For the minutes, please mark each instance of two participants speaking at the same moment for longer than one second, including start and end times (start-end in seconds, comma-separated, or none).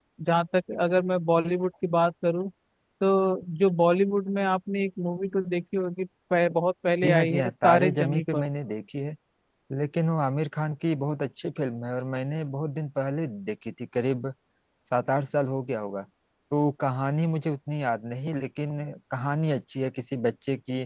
7.0-8.4